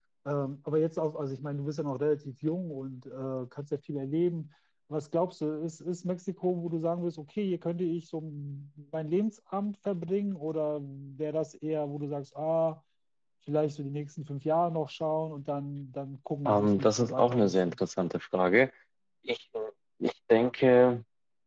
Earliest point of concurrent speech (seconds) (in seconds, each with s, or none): 16.4 s